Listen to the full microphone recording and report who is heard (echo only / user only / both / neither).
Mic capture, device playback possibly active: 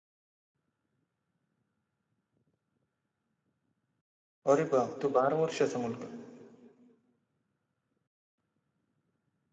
user only